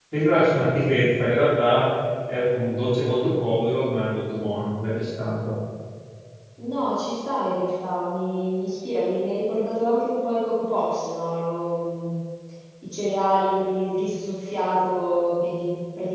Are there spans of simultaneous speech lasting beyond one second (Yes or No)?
No